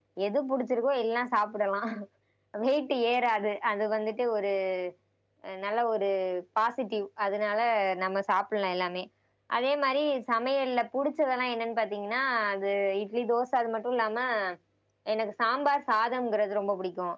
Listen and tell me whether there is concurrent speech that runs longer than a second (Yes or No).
No